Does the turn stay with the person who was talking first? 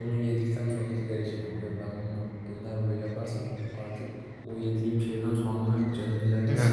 No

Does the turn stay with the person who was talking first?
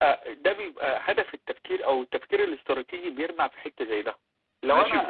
No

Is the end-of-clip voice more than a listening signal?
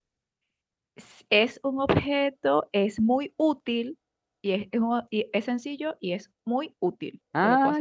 Yes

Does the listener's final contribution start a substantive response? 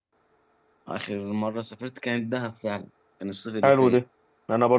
Yes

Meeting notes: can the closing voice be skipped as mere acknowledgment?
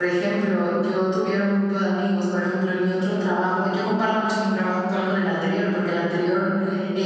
Yes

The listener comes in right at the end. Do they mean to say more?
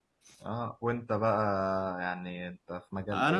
Yes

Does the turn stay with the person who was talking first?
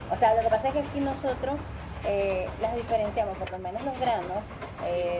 Yes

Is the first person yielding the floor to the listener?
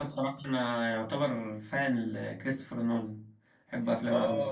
Yes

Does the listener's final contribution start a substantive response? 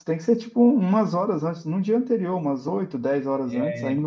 No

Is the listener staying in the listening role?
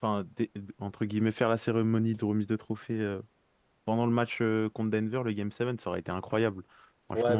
No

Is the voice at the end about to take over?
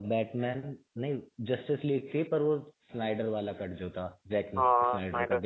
Yes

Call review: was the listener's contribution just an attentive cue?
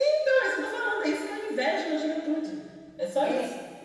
No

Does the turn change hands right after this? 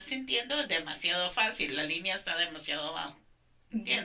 Yes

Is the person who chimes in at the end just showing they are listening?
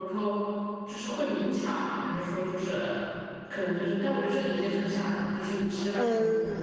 No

